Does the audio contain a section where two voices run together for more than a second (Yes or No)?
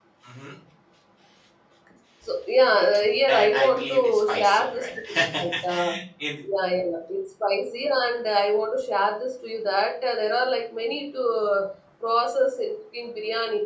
Yes